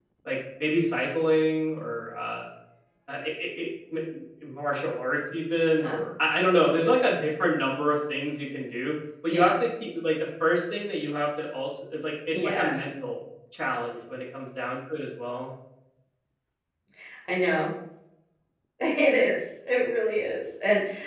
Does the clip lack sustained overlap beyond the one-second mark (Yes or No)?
Yes